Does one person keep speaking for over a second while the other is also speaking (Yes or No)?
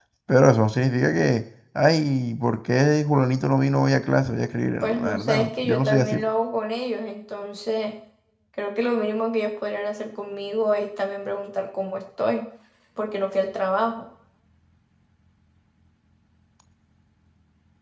Yes